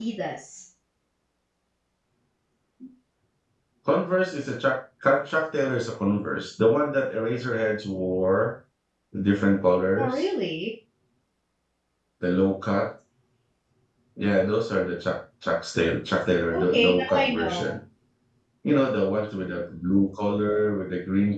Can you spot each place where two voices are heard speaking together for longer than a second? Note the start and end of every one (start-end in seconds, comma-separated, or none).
16.5-17.7